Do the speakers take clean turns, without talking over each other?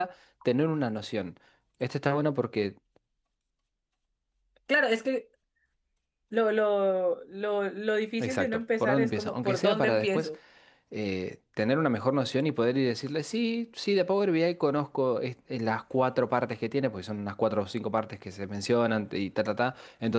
No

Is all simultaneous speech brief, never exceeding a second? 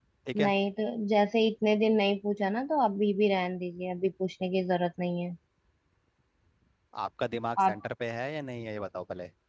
Yes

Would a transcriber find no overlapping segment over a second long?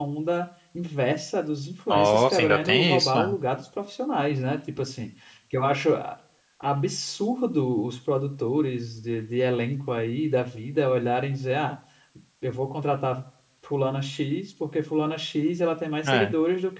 No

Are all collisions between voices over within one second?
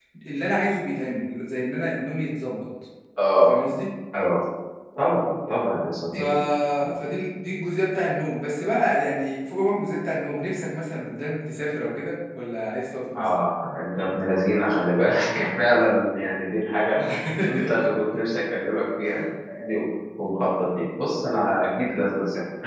Yes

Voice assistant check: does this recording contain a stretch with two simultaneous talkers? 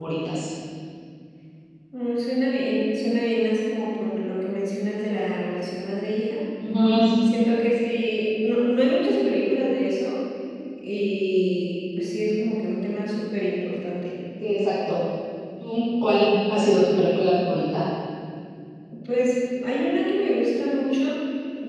No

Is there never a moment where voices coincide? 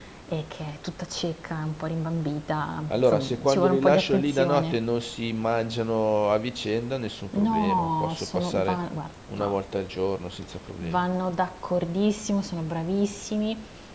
No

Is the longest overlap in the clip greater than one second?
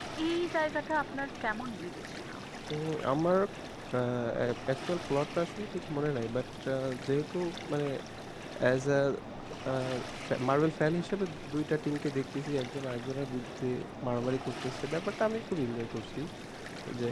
No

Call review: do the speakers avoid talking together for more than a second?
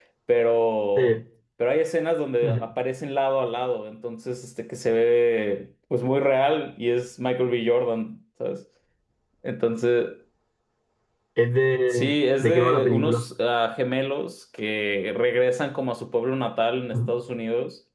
No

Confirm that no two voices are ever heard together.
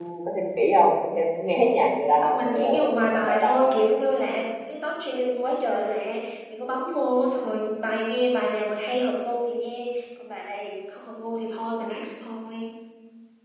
No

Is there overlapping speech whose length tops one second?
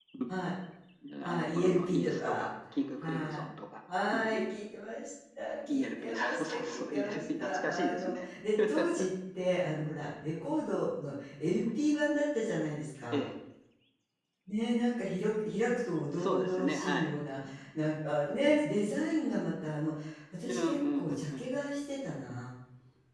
Yes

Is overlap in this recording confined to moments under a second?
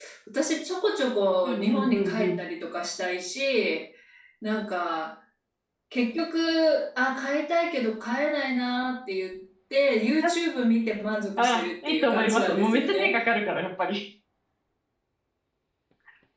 No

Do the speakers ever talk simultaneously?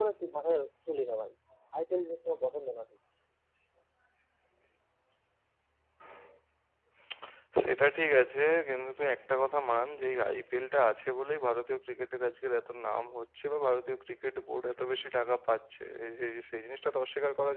No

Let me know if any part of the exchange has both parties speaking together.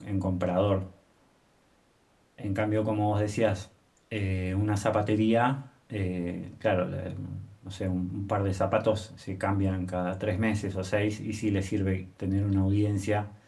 No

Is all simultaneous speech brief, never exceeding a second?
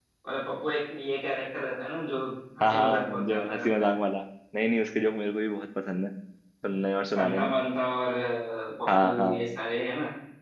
No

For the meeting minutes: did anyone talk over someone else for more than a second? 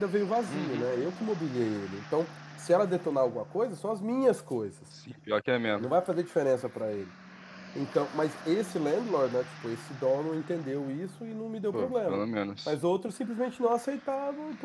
No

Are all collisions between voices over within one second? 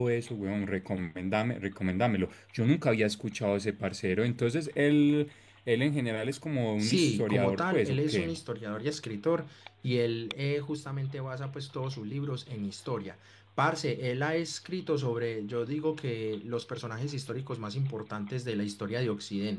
No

